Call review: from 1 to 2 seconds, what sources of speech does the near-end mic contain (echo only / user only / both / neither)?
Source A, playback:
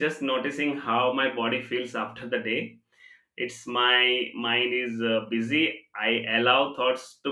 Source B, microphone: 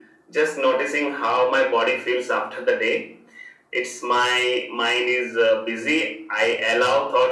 echo only